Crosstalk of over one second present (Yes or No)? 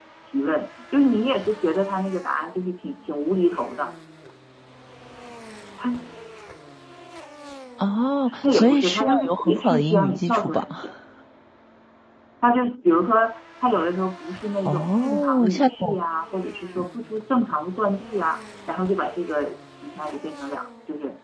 Yes